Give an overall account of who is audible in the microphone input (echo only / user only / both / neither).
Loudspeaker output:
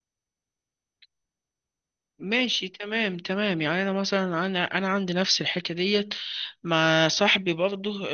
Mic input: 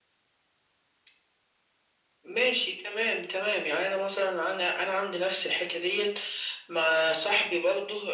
echo only